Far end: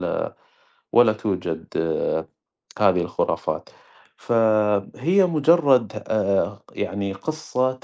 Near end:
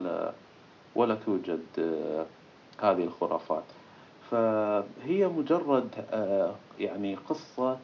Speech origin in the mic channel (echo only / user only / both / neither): echo only